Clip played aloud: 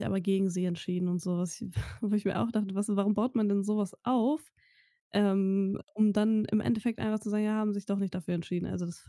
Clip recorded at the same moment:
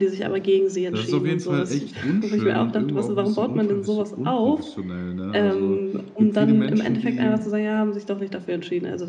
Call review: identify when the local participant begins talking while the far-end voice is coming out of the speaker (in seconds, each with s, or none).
0.9 s